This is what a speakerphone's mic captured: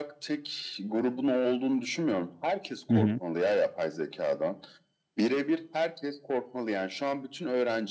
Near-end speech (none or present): present